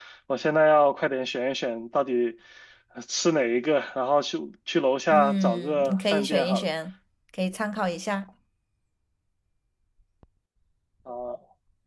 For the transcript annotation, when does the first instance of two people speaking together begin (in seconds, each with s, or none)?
5.1 s